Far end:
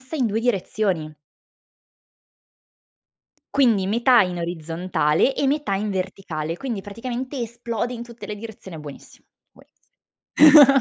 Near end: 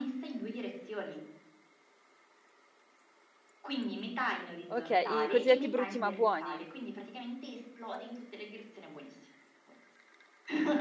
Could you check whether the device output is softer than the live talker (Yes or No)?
Yes